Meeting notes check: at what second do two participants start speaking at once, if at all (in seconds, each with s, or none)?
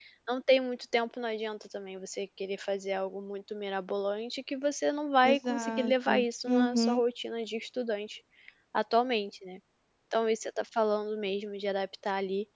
5.2 s